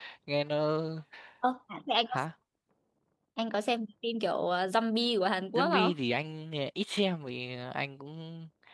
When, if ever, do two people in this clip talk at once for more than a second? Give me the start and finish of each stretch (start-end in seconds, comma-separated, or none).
none